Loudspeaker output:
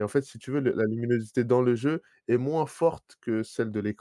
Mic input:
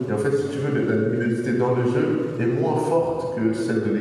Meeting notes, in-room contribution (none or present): none